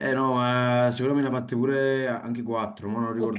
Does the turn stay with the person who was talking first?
No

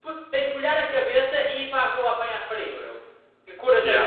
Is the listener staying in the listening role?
No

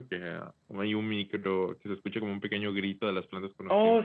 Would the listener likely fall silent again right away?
No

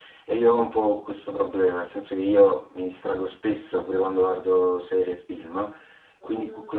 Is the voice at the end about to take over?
No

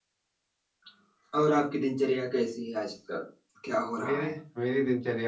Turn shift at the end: Yes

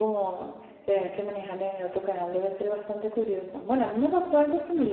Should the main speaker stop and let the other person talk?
No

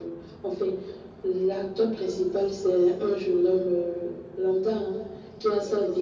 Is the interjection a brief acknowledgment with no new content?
Yes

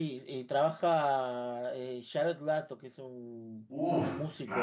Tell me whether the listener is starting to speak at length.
Yes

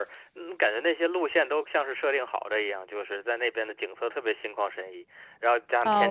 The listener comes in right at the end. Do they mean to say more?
Yes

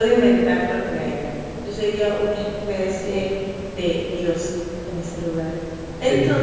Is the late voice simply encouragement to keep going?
Yes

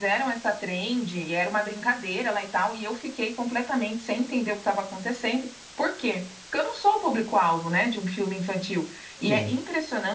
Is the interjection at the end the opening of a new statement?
No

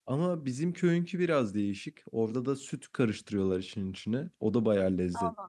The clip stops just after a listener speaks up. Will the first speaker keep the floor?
No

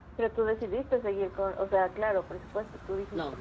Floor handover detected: Yes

